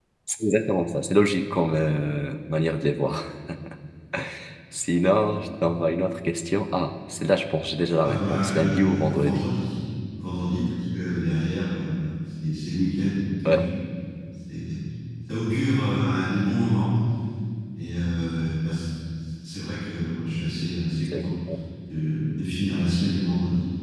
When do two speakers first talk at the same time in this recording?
8.0 s

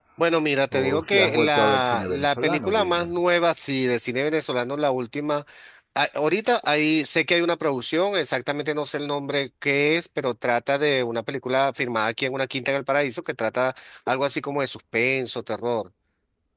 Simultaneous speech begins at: 0.7 s

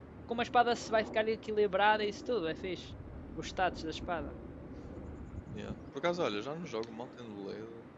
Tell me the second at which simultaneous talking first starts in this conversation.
none

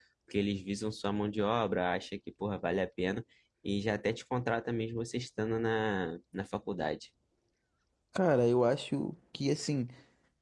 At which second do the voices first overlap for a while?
none

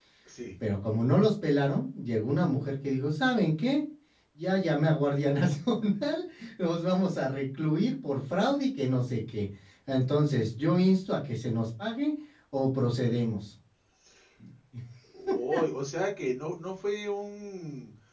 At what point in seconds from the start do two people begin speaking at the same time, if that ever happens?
none

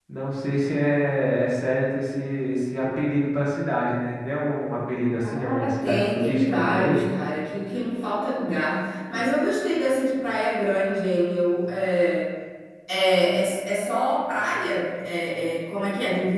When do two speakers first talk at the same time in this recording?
5.2 s

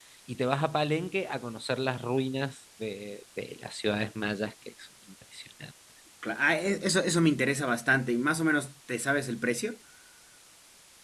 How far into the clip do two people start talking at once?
none

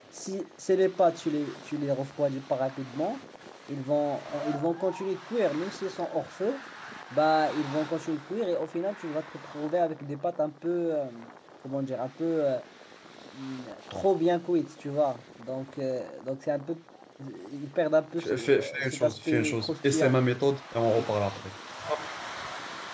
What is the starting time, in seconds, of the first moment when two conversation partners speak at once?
18.2 s

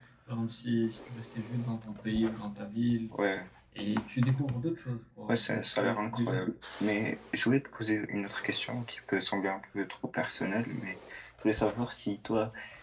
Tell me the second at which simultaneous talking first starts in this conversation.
5.3 s

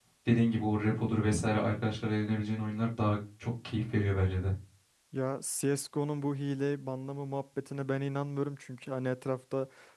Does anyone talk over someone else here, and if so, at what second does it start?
none

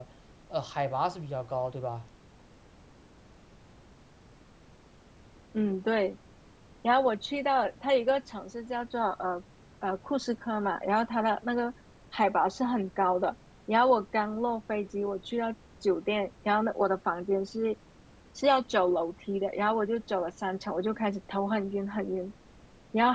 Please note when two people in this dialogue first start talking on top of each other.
none

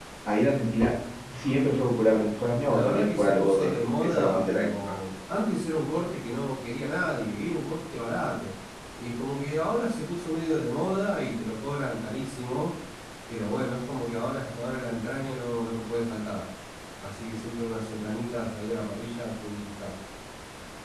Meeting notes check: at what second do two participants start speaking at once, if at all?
2.6 s

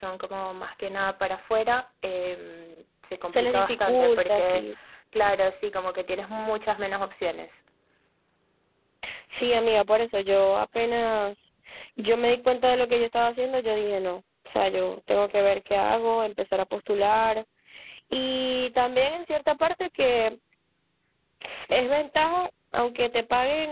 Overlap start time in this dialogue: 3.3 s

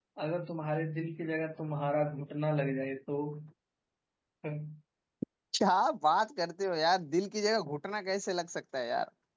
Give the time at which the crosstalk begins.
none

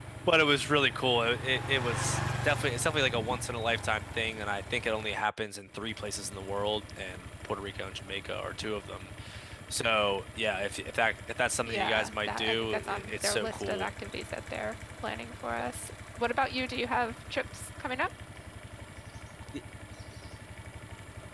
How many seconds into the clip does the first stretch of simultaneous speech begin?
11.7 s

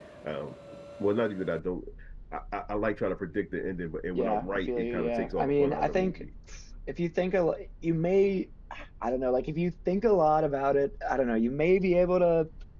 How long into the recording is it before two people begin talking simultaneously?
4.2 s

